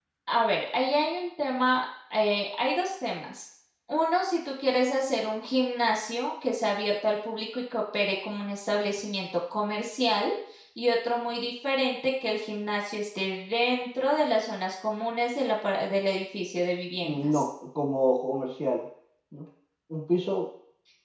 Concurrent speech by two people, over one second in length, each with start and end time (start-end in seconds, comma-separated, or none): none